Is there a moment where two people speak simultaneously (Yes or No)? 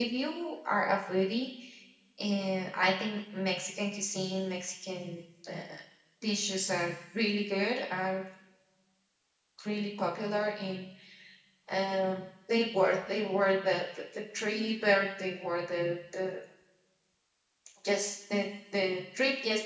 No